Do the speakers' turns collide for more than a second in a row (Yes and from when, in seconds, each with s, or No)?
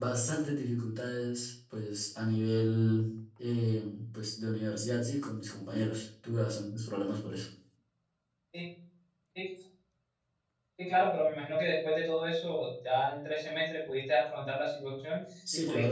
No